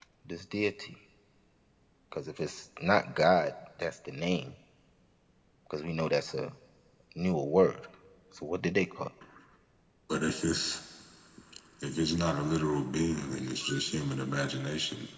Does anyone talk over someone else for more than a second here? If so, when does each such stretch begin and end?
none

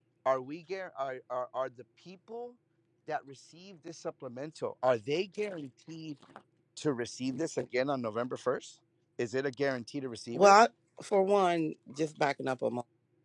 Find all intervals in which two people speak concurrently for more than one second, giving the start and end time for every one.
none

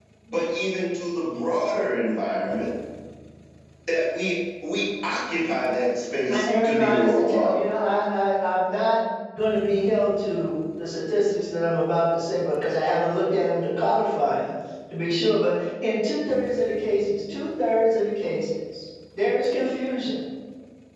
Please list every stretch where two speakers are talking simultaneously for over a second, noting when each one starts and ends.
6.3-7.7

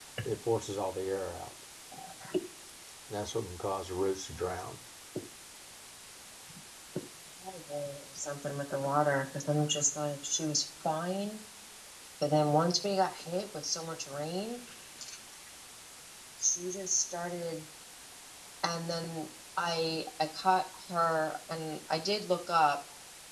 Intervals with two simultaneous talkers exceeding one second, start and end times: none

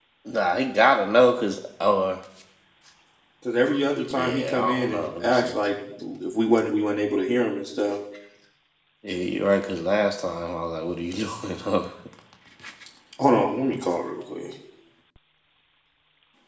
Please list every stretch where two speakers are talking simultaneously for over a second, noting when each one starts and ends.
4.1-5.5

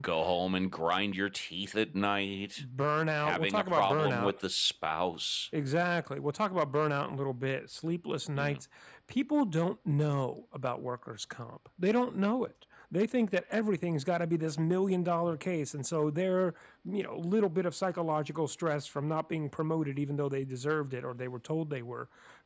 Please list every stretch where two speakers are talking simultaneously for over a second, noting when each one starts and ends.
3.2-4.4

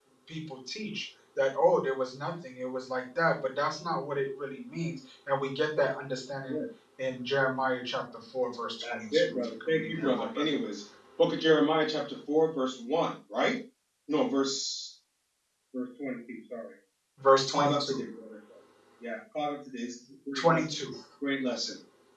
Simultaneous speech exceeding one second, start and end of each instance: 8.8-10.4

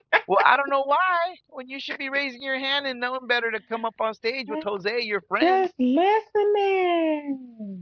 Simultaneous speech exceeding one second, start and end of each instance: none

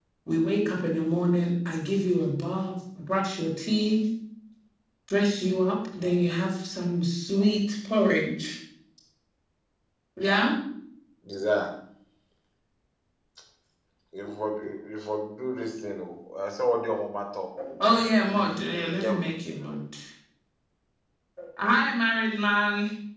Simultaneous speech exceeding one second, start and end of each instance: 17.9-19.3

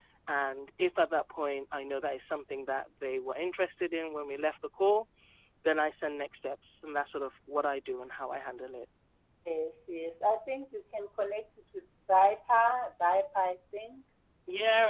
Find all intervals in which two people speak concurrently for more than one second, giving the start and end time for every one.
none

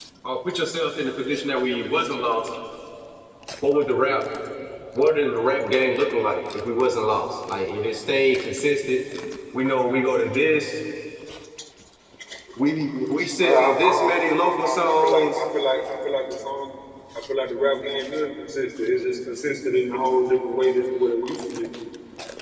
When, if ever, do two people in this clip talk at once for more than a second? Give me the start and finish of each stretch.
13.4-15.4

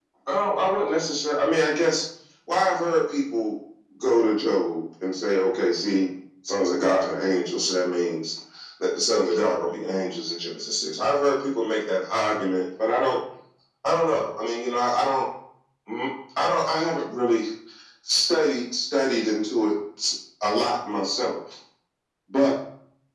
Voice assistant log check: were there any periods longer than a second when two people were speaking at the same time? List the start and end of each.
none

